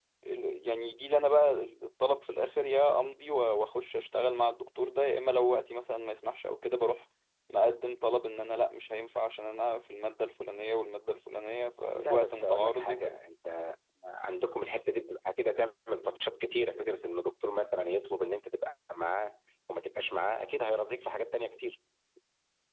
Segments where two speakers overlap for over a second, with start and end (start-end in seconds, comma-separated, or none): 11.9-13.2